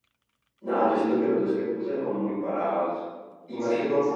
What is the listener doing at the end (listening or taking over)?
listening